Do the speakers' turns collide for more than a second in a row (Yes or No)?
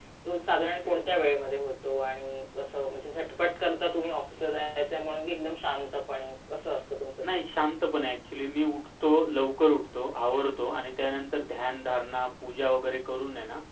No